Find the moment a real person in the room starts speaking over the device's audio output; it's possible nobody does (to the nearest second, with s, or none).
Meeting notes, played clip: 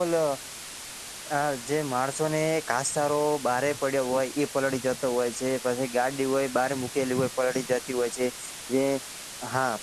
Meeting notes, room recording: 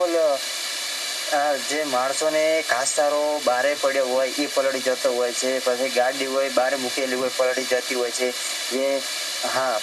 none